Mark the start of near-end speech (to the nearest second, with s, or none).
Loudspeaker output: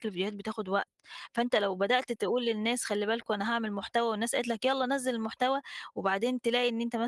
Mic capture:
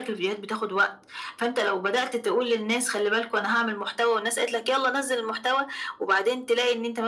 none